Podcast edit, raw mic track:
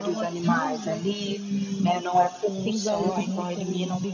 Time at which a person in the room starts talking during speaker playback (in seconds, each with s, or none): none